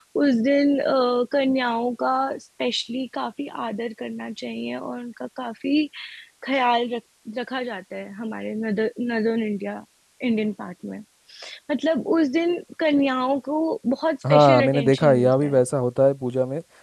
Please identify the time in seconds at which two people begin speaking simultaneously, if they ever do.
14.2 s

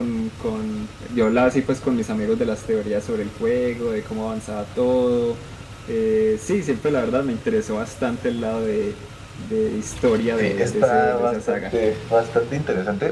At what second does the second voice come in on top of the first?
10.4 s

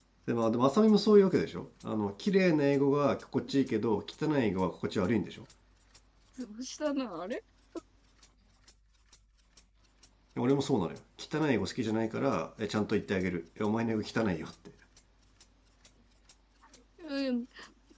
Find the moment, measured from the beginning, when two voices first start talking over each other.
none

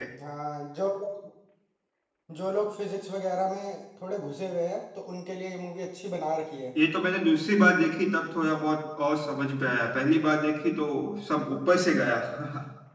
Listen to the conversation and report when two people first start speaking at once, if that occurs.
none

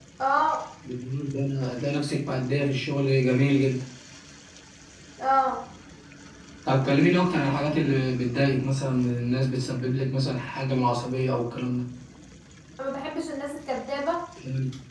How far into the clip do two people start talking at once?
none

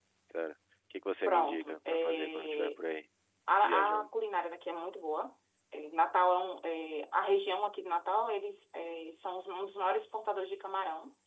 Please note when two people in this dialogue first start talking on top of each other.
1.3 s

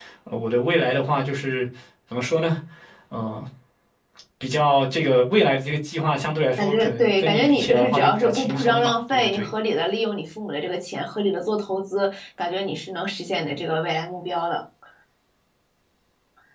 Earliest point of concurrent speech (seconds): 6.6 s

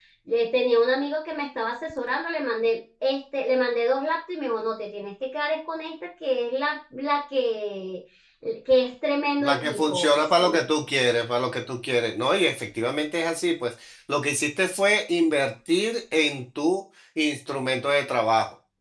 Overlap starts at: 9.4 s

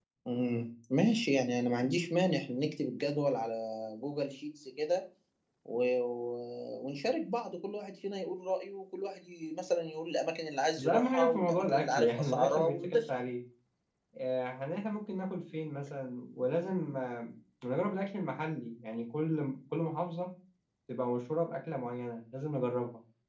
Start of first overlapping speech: 10.8 s

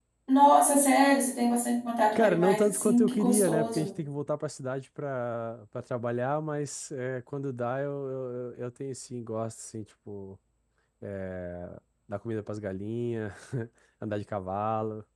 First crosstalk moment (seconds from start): 2.1 s

